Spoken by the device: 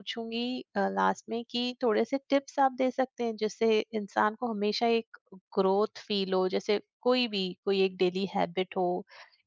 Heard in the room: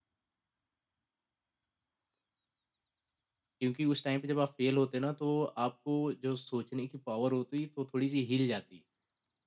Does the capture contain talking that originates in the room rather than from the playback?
Yes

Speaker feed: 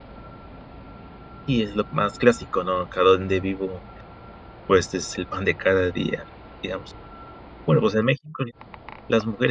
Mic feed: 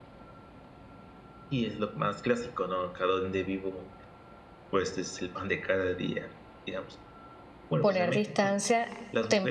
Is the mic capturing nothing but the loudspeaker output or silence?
No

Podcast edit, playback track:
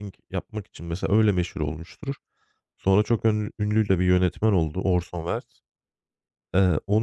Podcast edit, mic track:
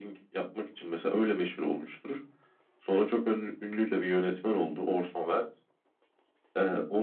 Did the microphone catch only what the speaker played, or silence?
Yes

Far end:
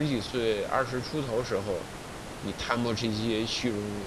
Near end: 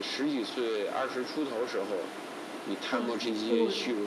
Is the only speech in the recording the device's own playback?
No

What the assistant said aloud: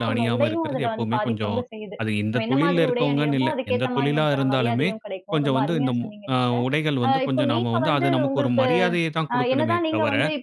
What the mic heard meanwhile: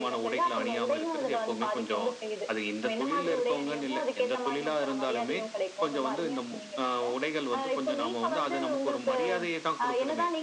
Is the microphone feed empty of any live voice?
Yes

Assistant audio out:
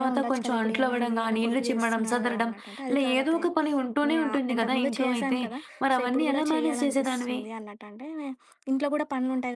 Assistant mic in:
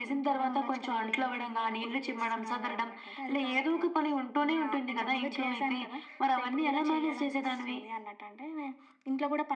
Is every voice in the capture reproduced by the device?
Yes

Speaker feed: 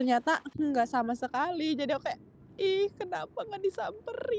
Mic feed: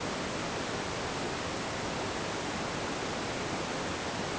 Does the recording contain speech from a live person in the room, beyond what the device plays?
No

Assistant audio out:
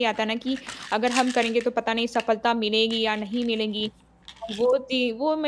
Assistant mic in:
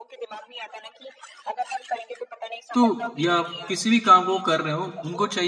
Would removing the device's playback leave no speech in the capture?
No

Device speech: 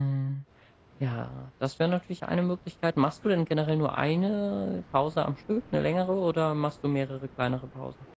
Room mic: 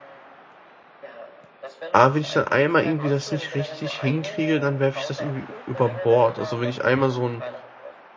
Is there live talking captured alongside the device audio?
Yes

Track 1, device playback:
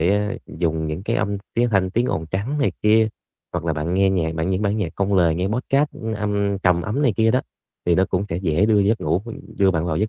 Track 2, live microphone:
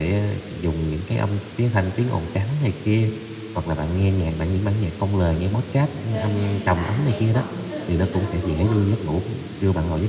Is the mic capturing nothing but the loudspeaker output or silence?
No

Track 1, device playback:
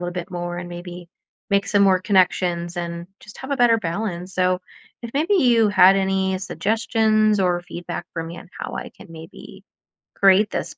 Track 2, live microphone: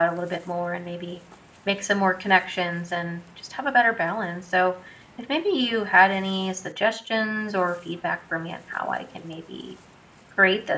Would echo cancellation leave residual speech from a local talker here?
No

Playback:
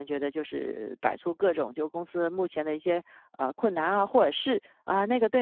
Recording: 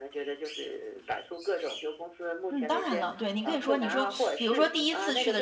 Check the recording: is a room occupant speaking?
Yes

